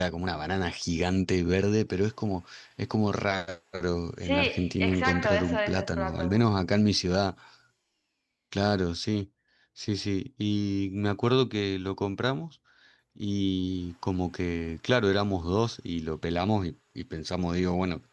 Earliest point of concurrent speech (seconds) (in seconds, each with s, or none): 4.2 s